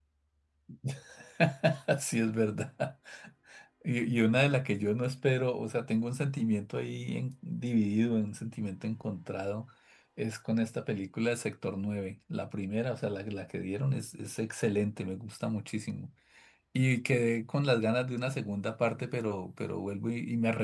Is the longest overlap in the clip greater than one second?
No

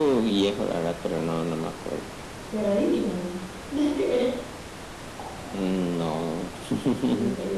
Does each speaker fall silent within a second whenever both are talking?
Yes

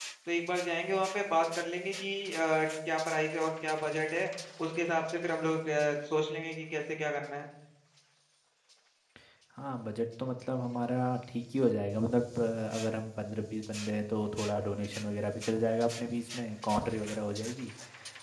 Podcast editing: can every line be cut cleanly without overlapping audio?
Yes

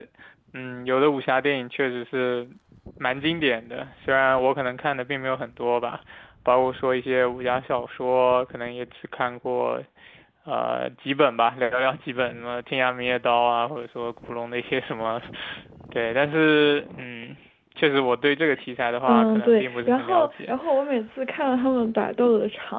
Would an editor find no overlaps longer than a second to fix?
No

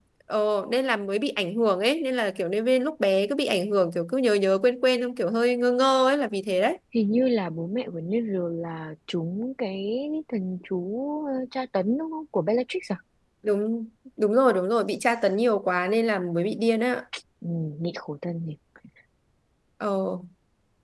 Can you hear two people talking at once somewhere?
No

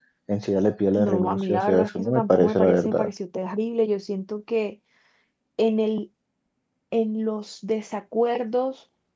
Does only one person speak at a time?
No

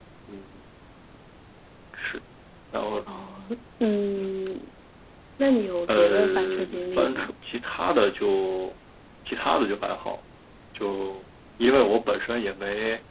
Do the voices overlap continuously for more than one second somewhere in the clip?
Yes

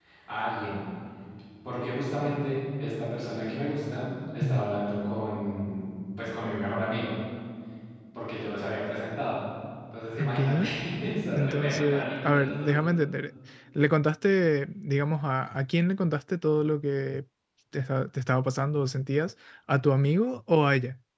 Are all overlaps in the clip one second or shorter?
No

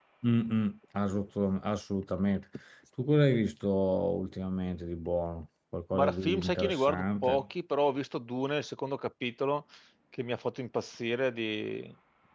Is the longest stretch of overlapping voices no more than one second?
No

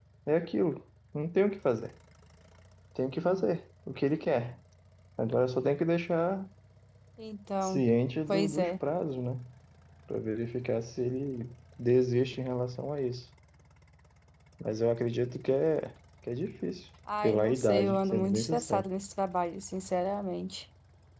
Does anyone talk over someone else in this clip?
Yes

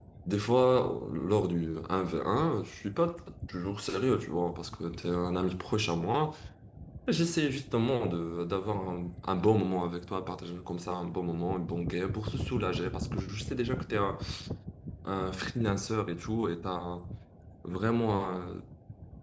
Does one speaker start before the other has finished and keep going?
No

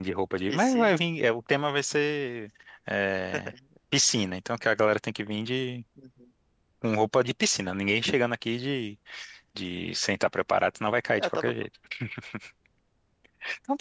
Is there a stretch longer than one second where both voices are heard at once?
No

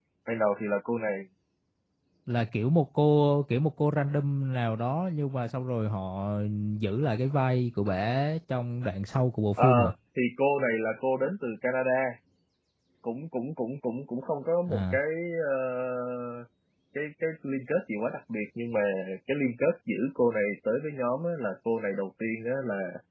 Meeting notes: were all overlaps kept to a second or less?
Yes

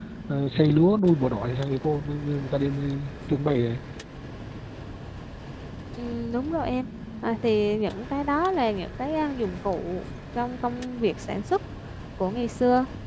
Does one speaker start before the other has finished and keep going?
No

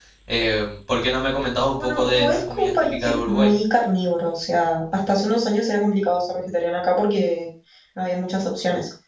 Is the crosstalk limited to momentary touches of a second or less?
No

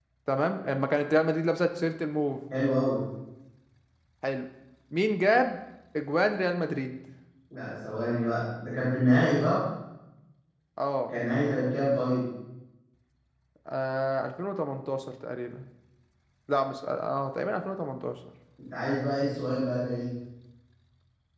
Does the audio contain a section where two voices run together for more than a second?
No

